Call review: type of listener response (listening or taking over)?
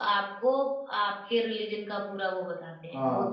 taking over